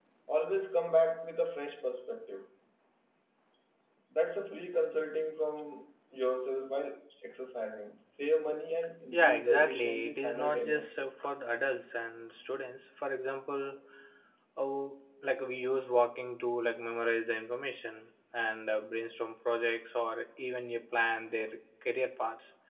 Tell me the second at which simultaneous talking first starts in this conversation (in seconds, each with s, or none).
9.1 s